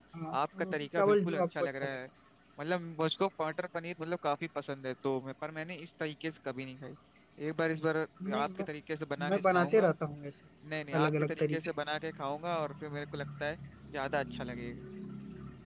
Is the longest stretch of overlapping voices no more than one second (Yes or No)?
No